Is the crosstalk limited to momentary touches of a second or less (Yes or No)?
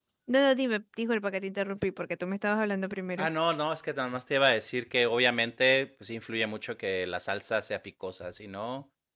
Yes